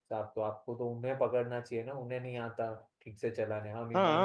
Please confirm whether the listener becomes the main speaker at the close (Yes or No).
Yes